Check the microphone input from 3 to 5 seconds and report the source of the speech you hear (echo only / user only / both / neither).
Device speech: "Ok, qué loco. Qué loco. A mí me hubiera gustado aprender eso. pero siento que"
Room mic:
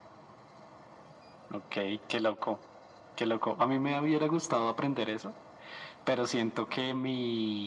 echo only